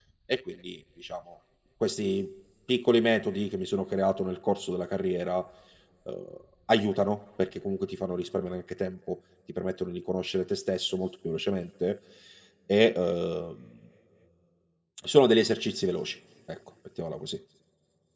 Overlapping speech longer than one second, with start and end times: none

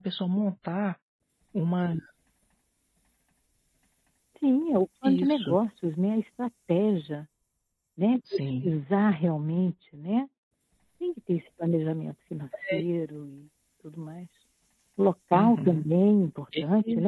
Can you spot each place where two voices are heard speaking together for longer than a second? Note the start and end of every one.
none

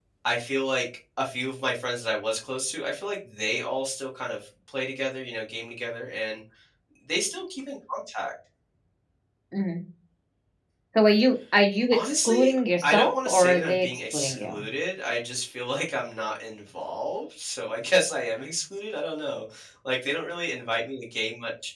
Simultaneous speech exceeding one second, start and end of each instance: 11.9-14.6

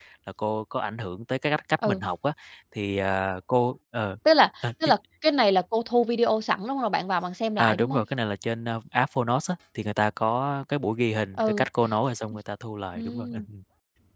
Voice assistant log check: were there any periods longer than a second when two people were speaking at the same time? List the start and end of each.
none

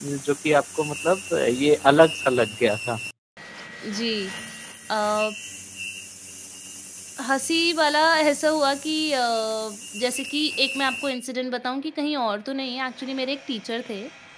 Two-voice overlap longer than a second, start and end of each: none

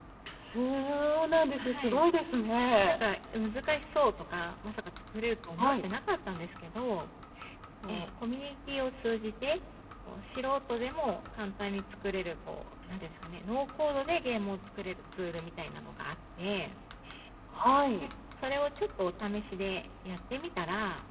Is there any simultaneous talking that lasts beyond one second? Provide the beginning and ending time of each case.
none

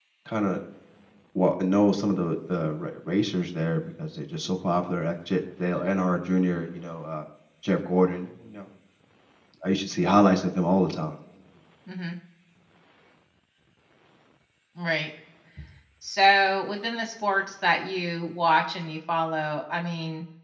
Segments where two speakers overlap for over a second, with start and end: none

